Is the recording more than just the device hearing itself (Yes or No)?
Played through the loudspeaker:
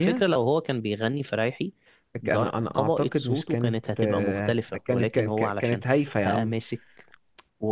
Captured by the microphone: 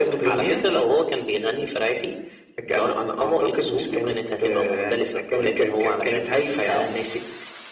No